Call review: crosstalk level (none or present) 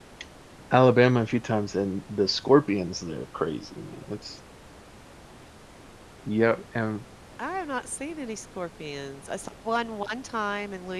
none